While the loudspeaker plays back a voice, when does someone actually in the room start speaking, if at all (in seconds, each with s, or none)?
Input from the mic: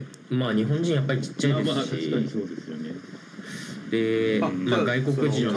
4.4 s